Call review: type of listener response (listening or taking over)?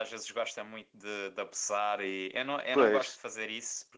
listening